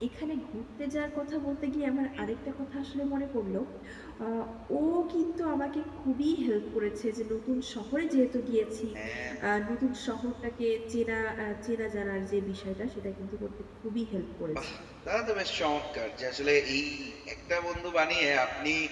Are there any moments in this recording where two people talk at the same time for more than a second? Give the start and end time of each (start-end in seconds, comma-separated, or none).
none